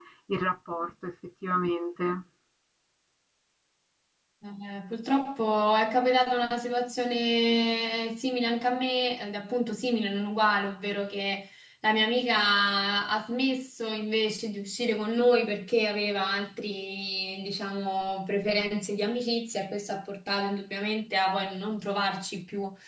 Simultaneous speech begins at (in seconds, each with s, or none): none